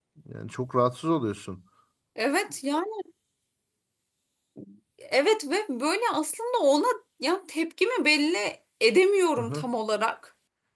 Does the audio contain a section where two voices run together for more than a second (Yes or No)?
No